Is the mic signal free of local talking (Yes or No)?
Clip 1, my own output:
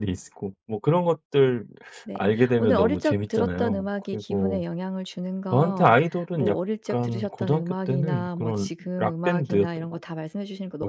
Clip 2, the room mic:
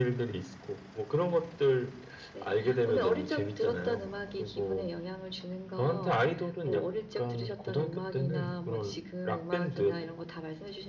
Yes